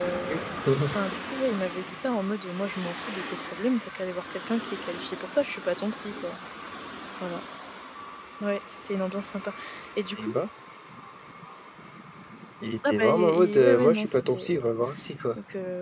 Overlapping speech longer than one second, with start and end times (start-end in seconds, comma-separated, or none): 12.9-14.6